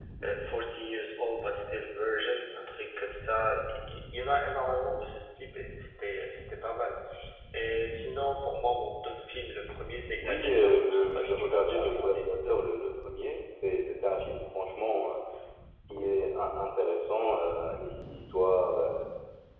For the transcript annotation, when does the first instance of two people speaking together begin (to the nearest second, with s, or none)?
10 s